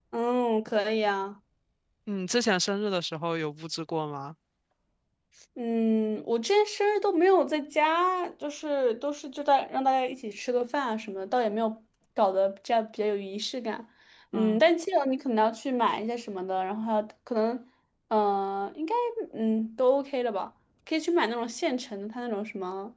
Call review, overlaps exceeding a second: none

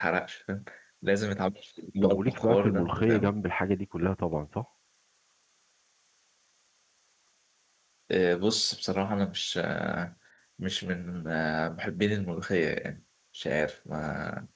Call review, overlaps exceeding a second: present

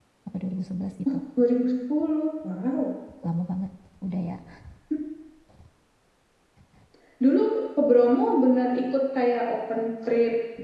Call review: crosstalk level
none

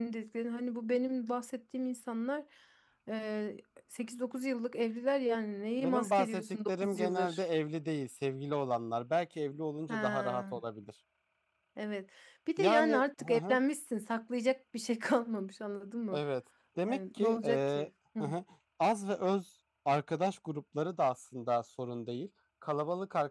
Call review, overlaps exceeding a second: present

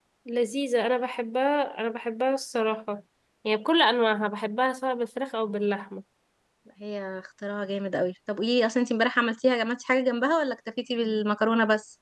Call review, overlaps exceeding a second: none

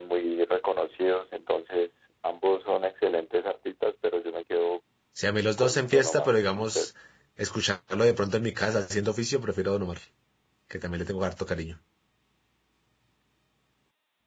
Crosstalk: present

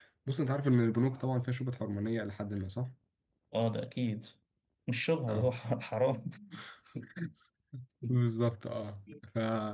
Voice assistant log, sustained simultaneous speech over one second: none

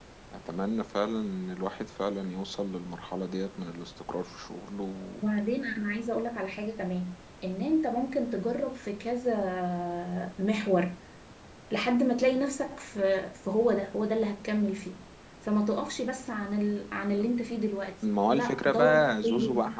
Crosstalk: present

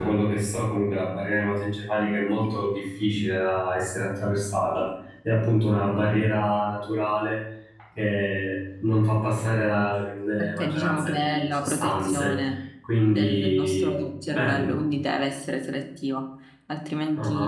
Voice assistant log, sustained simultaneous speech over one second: present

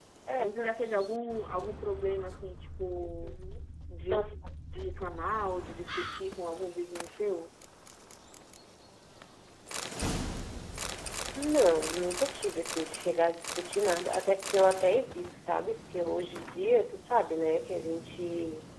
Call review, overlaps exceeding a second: none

